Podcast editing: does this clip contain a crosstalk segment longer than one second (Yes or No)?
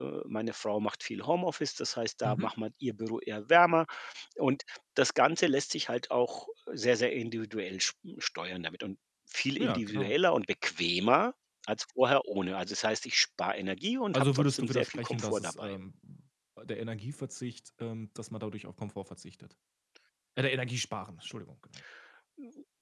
Yes